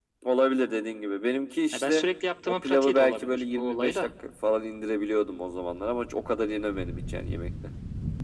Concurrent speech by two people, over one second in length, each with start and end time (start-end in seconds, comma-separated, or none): 2.5-4.1